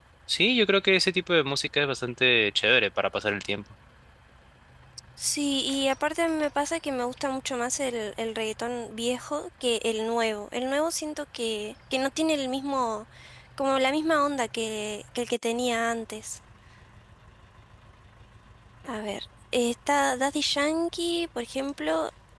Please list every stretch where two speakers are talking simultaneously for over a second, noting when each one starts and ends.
none

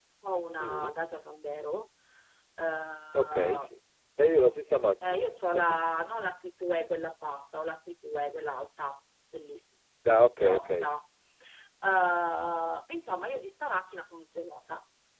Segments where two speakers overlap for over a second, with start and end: none

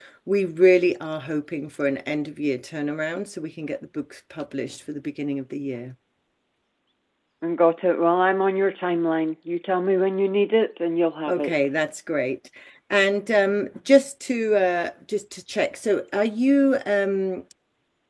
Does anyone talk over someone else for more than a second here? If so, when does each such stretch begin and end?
none

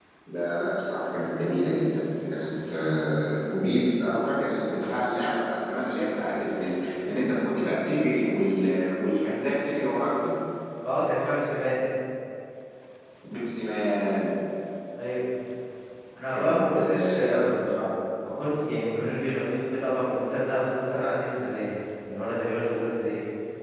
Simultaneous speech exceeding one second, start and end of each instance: 16.3-17.8

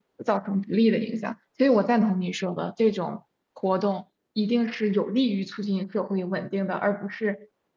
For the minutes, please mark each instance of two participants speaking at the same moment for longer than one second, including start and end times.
none

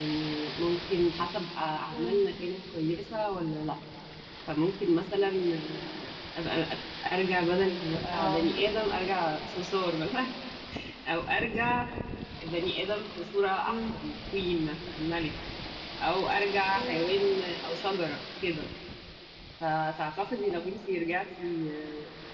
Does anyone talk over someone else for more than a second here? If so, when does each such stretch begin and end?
none

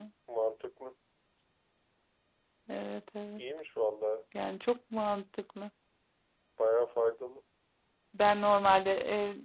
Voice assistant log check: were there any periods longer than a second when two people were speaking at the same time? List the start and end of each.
none

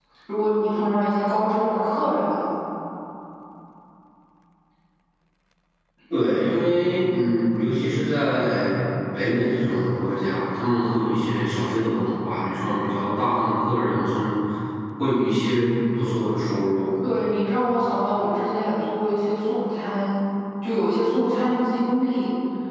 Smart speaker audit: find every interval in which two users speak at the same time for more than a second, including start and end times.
none

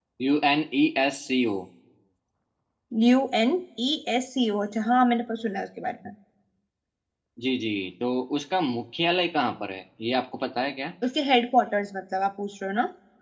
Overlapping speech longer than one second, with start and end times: none

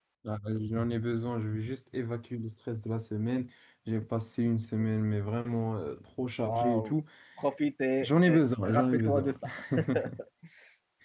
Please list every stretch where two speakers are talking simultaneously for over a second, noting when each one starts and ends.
8.0-9.3

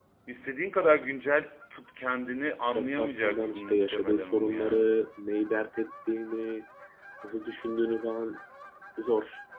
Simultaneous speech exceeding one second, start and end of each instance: 2.6-4.9

